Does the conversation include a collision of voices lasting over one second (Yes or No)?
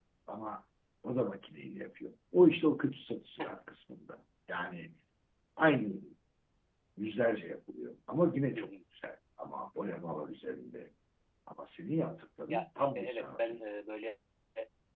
Yes